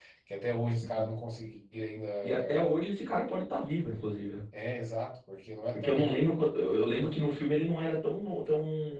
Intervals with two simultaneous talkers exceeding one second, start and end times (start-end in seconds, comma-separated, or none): none